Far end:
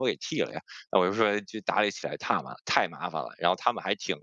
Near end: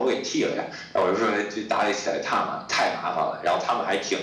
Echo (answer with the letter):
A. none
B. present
B